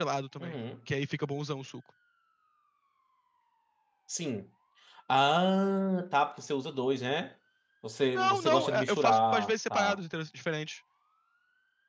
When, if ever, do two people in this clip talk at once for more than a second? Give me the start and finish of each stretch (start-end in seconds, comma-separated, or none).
8.2-10.0